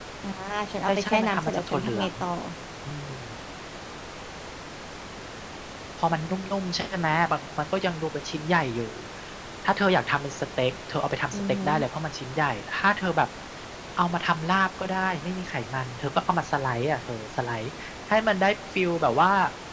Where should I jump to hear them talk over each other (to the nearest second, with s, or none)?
1 s